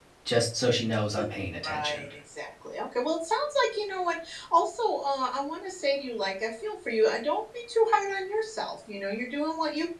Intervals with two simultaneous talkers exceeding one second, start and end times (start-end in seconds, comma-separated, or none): none